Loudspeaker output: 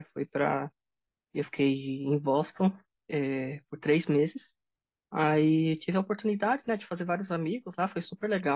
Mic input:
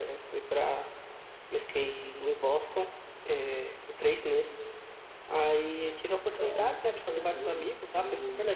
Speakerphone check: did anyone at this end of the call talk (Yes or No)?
Yes